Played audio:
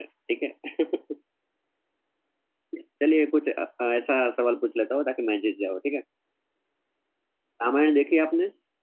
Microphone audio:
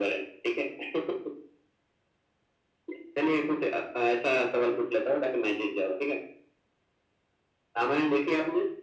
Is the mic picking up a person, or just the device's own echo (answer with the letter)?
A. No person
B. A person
A